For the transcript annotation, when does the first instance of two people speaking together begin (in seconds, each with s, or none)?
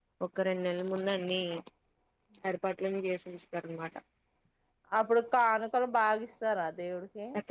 none